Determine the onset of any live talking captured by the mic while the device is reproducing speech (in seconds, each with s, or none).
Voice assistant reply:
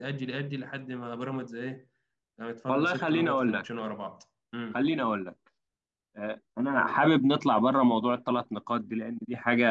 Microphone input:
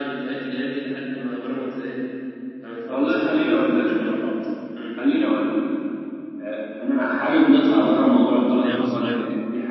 8.5 s